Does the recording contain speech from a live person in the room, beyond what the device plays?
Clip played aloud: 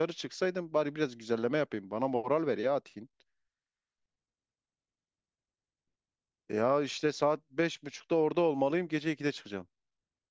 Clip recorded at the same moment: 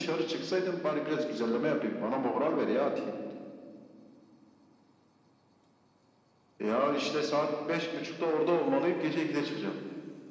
No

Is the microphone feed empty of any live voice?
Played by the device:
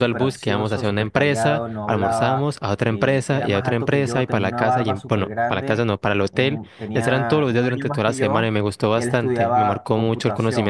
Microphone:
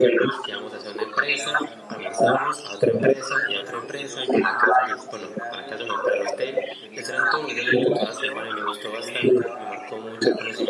Yes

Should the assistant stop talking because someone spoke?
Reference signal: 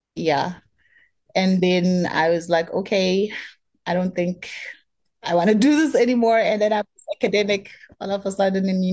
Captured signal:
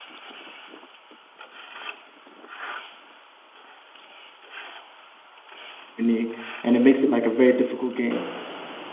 Yes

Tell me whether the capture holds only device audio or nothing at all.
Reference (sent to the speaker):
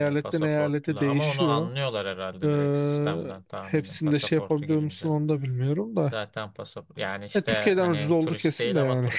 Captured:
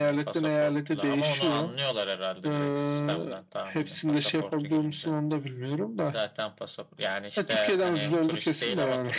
Yes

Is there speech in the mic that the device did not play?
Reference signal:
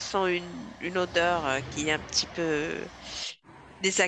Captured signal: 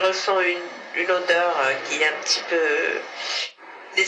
No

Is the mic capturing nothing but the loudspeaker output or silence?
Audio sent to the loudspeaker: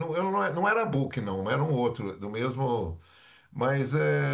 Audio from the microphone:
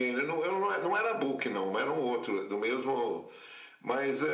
Yes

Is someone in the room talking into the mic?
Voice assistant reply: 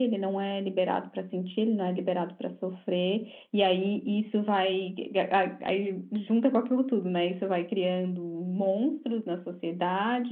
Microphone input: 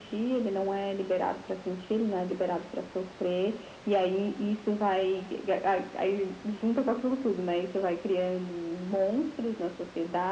No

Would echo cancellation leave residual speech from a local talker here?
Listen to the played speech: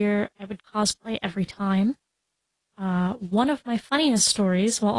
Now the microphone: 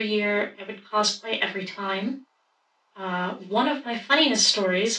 No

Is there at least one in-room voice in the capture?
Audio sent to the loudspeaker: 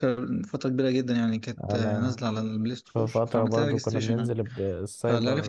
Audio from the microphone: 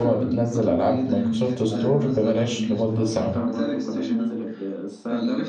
Yes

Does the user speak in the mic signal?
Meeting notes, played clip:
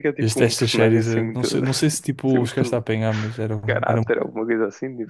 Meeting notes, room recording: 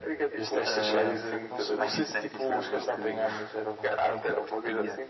Yes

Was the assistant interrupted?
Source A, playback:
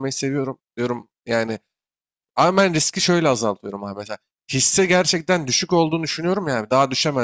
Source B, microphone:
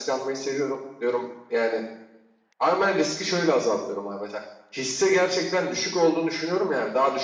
No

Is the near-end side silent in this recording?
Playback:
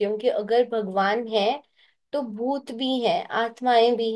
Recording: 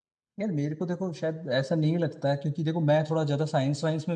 No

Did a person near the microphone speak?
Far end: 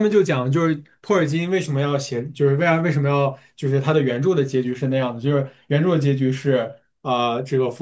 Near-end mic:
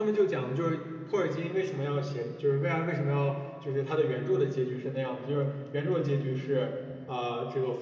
No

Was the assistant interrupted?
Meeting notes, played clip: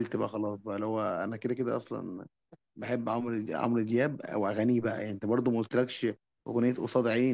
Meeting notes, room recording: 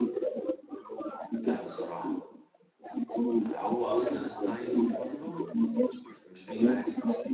Yes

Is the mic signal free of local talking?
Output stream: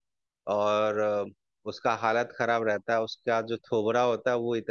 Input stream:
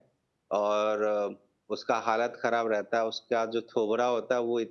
Yes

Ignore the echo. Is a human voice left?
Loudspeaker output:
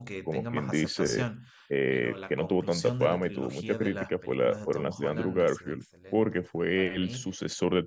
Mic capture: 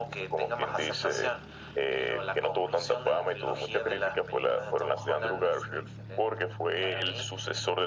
No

